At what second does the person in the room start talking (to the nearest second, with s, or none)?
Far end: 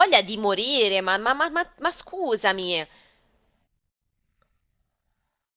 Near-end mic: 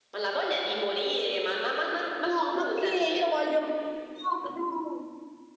2 s